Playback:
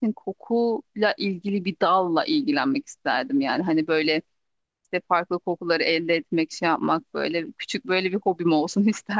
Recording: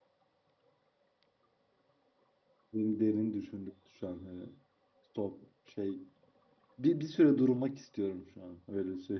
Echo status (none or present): none